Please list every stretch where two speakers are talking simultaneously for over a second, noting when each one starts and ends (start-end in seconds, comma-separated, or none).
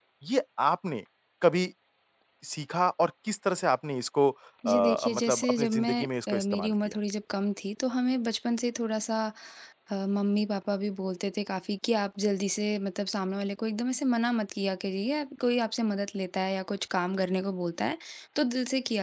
4.6-7.0